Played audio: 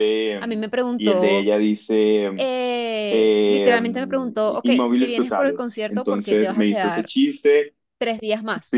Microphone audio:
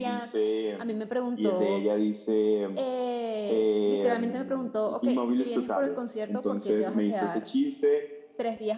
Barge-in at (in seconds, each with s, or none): none